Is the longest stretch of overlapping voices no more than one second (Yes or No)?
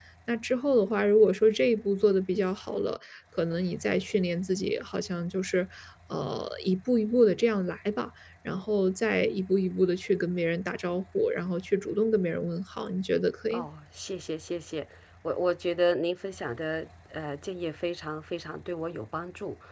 Yes